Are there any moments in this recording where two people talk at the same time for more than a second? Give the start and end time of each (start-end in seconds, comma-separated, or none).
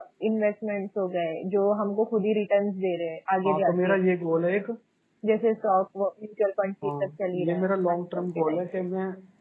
7.5-8.8